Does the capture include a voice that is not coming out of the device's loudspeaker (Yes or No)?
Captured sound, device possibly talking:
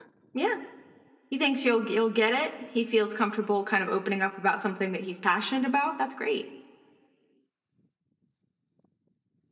Yes